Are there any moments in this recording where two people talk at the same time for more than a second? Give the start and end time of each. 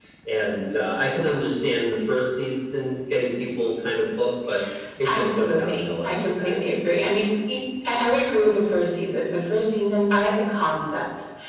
5.0-6.6

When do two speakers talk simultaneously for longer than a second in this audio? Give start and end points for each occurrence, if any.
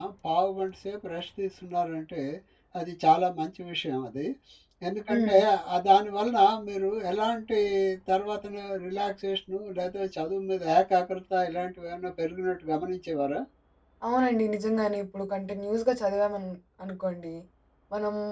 none

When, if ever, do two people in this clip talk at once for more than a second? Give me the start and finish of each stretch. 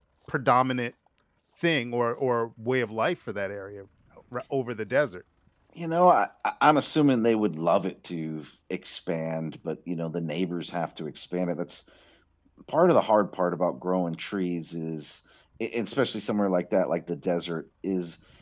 none

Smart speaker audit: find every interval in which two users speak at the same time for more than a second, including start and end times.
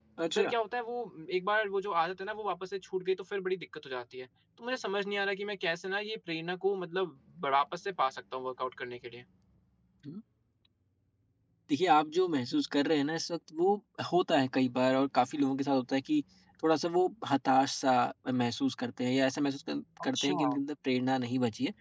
none

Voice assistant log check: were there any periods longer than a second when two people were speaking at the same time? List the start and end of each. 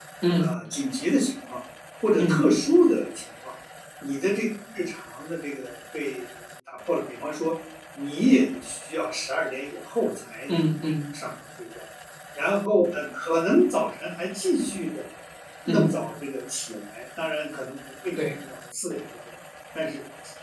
none

